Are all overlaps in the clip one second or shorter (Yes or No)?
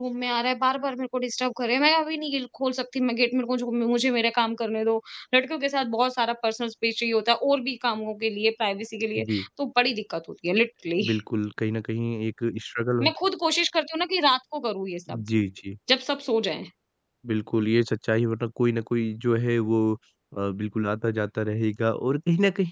Yes